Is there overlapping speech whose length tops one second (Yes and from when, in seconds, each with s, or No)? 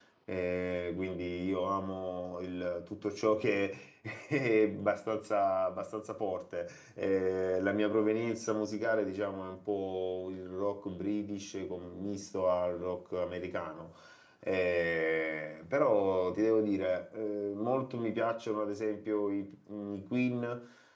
No